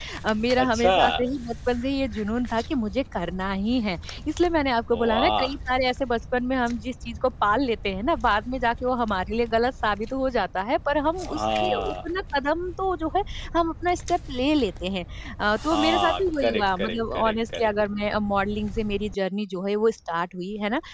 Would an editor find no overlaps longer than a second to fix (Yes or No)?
No